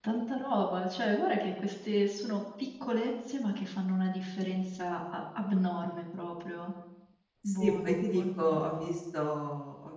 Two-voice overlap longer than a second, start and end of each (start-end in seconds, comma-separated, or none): 7.6-8.9